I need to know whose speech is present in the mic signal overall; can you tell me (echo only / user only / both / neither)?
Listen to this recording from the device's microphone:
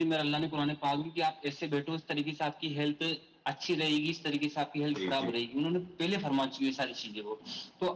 both